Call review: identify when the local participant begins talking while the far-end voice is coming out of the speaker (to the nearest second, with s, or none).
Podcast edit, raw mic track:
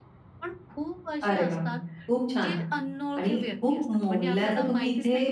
1 s